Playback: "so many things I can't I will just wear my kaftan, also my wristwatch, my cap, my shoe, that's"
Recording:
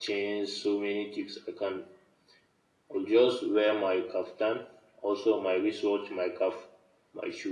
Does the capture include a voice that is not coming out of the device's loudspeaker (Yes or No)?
No